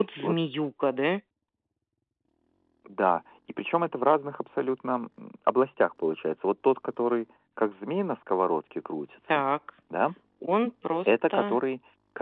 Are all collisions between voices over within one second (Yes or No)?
Yes